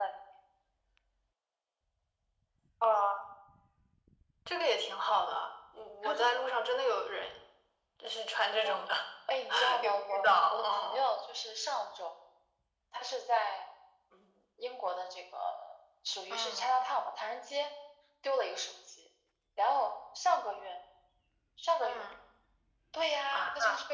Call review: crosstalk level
present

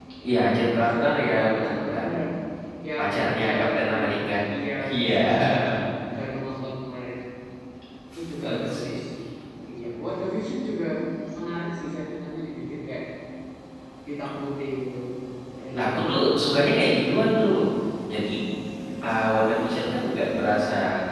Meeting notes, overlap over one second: present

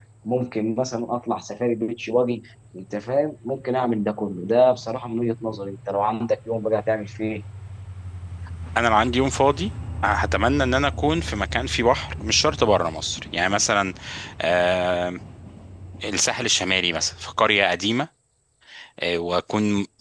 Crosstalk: none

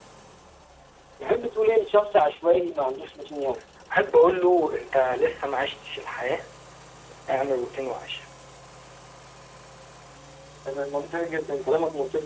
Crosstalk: none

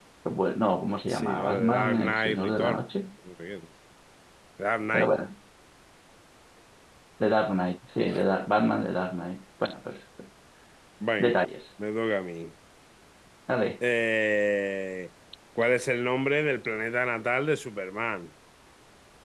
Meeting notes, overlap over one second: present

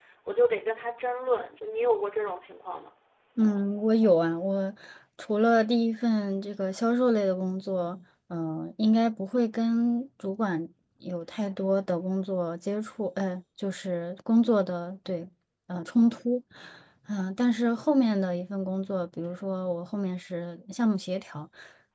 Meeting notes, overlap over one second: none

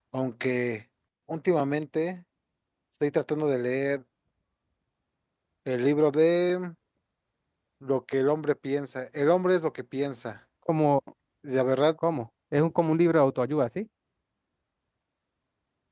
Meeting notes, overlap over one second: none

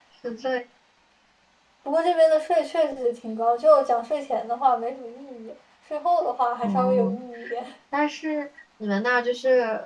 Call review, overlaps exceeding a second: none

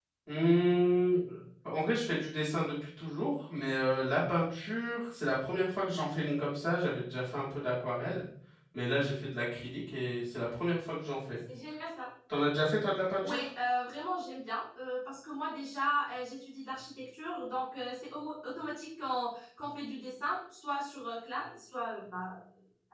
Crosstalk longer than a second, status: none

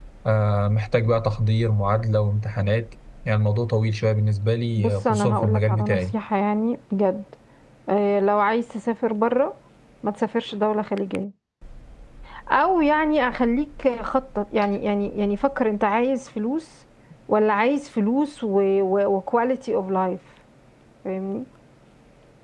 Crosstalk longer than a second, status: present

